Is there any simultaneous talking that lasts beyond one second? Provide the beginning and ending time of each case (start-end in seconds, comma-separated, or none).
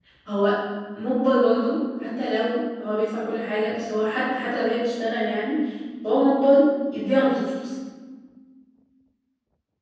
none